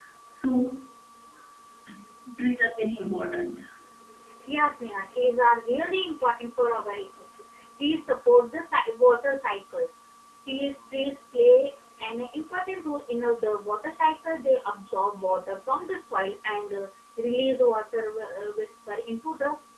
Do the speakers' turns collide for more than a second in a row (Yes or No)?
No